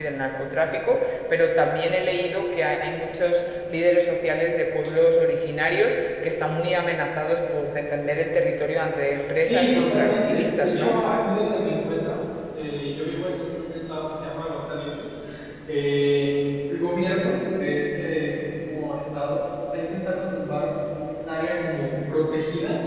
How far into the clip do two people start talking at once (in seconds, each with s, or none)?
9.4 s